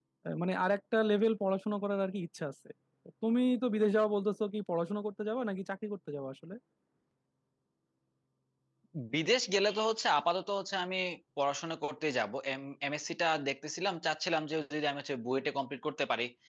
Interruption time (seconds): none

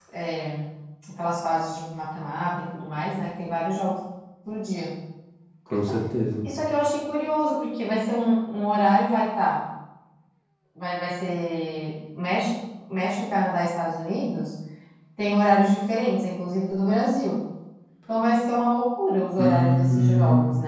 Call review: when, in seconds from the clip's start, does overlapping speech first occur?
19.4 s

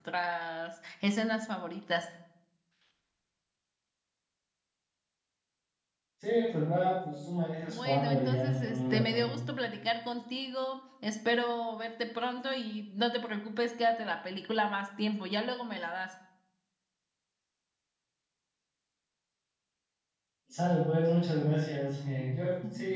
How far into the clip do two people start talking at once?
7.7 s

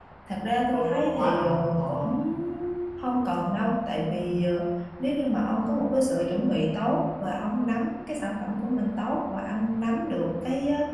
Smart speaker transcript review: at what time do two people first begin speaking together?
0.7 s

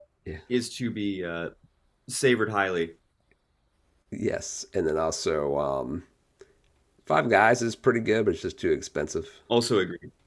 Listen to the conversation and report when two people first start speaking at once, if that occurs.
none

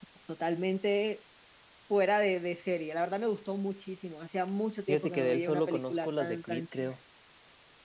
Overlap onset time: 4.9 s

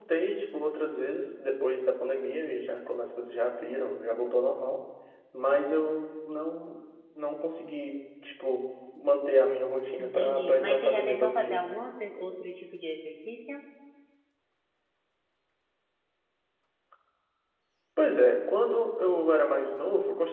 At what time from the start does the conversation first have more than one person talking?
10.0 s

